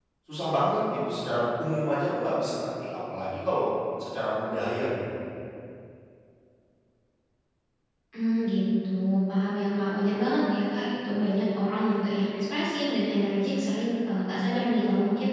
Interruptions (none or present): none